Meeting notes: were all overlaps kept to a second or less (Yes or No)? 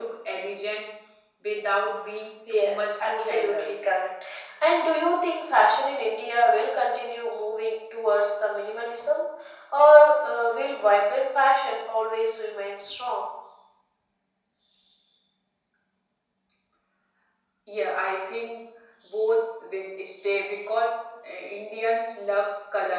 No